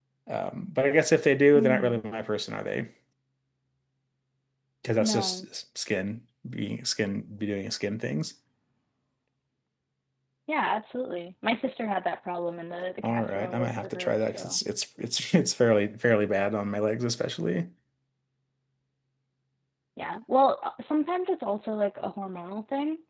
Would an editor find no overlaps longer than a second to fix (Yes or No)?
No